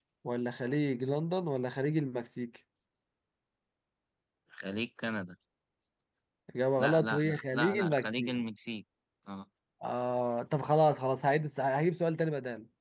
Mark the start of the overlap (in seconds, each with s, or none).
6.8 s